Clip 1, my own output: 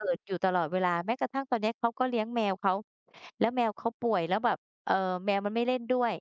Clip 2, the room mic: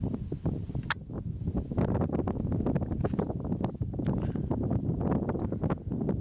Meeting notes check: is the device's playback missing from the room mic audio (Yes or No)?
Yes